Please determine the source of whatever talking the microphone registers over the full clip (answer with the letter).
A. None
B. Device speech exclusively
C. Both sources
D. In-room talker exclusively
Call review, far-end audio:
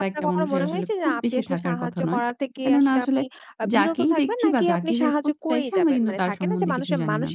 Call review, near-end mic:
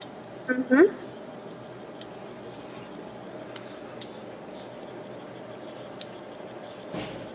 D